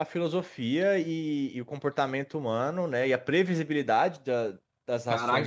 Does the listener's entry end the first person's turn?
Yes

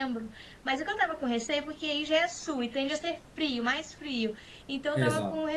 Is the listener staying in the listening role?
Yes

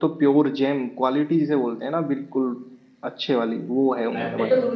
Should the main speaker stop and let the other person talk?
Yes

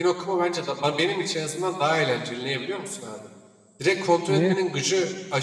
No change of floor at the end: Yes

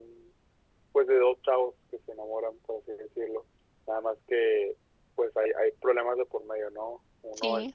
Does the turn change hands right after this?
No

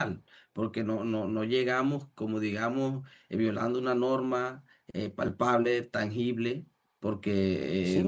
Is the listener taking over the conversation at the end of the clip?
Yes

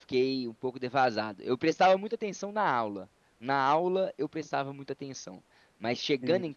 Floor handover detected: No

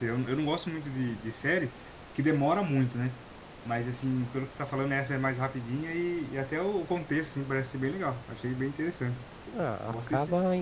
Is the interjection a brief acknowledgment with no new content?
No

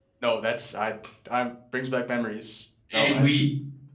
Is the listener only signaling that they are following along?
No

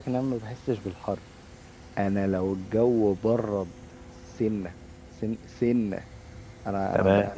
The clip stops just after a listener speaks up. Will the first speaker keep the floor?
Yes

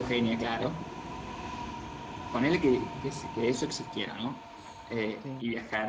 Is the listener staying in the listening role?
Yes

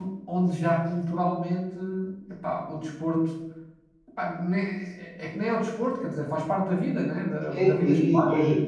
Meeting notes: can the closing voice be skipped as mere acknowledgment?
No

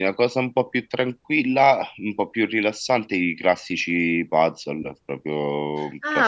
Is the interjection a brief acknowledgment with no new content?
No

